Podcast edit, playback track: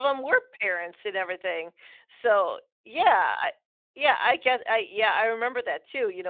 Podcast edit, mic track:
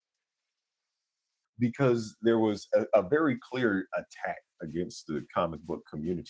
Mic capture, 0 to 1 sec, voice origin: neither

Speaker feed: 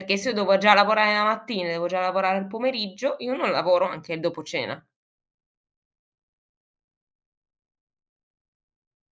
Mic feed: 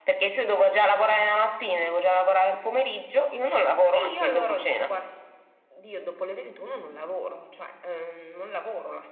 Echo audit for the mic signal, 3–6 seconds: both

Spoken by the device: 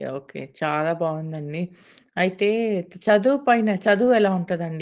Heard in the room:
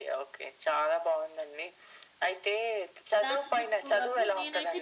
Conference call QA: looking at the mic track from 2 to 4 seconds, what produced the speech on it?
both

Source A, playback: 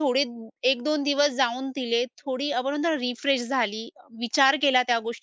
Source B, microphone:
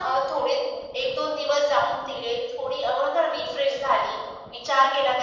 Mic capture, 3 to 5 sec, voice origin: echo only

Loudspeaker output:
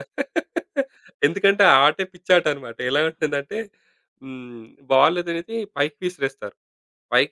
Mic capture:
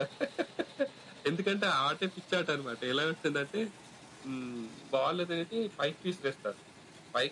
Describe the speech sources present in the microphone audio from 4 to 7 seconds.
echo only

